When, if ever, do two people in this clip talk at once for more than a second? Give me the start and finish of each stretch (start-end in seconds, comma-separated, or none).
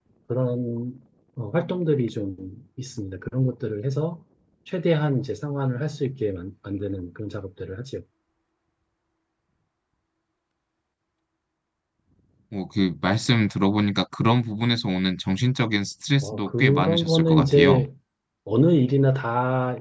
16.2-17.9